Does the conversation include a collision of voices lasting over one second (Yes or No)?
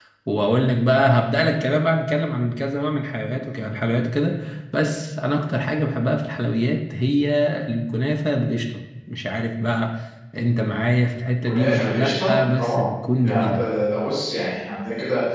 Yes